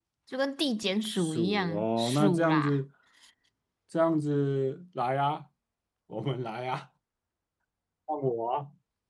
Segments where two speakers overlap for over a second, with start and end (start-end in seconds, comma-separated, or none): 1.2-2.8